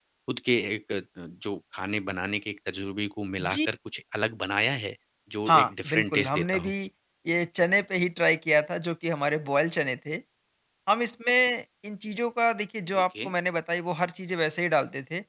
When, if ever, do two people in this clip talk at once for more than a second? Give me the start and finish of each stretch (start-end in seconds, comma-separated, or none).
5.5-6.7